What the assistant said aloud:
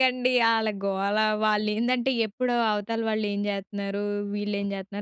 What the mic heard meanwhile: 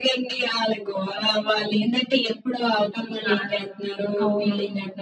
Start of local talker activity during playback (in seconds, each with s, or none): 3.3 s